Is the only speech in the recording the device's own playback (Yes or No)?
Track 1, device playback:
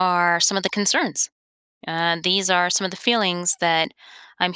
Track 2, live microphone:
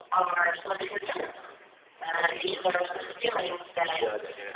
No